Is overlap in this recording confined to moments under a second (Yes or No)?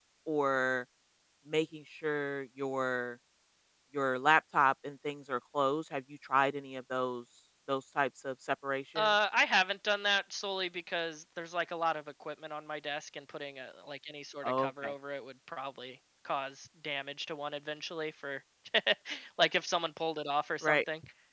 Yes